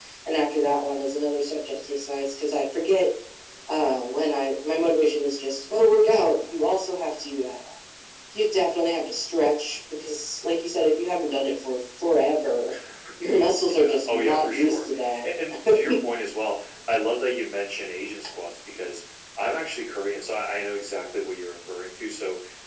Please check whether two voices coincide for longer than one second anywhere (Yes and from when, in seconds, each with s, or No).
Yes, from 13.8 s